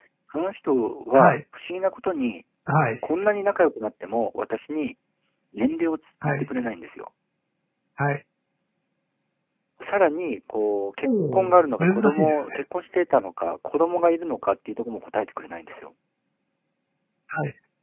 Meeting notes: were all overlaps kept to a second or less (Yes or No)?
No